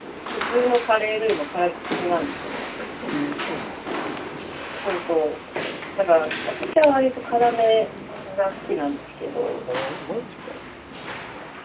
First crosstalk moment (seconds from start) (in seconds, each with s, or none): none